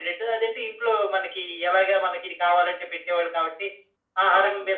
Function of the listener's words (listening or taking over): listening